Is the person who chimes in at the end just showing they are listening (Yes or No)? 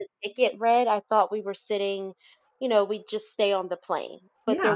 Yes